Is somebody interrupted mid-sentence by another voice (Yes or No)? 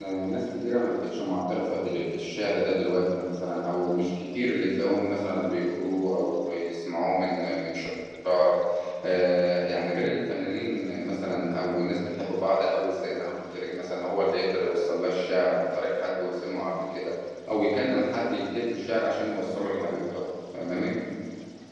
No